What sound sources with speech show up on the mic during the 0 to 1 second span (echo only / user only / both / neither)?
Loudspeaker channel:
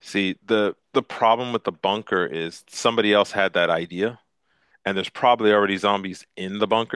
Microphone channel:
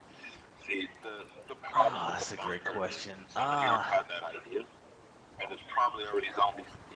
echo only